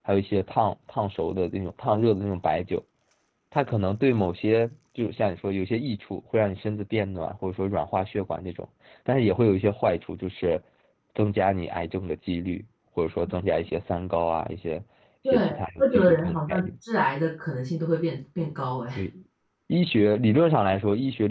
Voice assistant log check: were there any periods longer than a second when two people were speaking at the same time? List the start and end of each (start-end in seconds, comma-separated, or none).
15.2-16.7